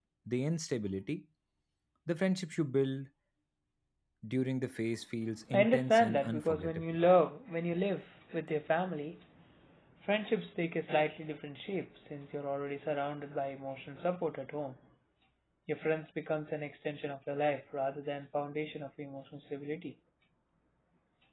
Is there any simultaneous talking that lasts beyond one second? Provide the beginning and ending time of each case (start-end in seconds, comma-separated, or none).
5.5-6.8